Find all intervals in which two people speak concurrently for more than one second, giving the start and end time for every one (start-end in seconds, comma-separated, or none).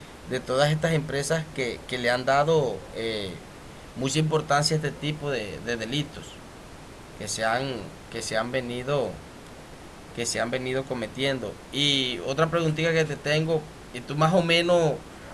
none